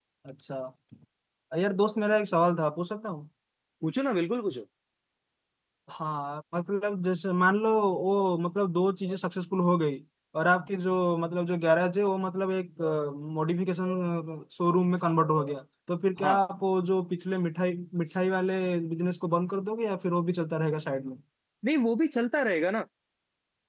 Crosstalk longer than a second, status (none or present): none